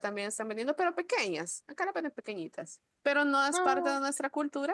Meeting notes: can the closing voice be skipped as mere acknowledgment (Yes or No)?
Yes